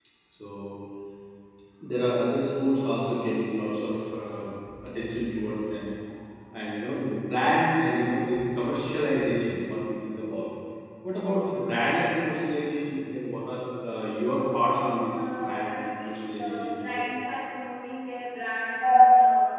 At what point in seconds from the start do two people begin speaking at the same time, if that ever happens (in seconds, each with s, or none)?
15.2 s